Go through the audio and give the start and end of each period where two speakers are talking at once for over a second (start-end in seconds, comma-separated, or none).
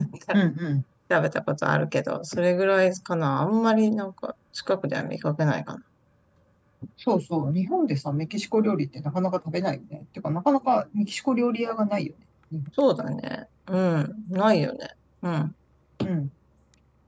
none